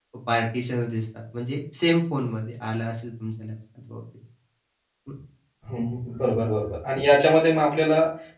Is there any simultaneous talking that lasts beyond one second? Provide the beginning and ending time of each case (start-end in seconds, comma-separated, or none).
none